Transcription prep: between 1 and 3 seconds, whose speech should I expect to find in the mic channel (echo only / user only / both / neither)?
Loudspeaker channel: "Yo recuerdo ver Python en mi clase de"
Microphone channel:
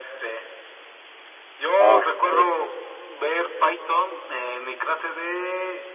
both